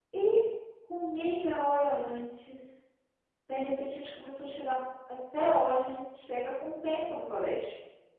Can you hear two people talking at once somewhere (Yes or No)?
No